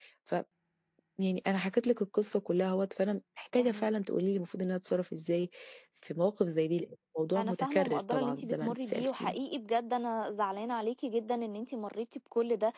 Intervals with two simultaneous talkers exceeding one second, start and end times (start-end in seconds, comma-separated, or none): 7.4-9.4